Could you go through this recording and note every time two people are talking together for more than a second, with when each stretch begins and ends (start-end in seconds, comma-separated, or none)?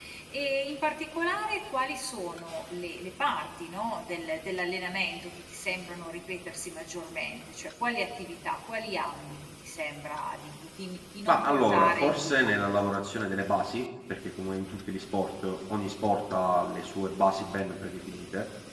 11.3-12.5